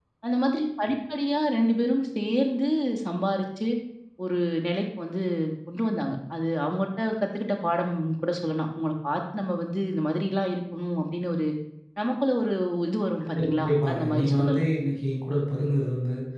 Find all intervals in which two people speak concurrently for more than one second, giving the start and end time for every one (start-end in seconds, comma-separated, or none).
13.2-14.6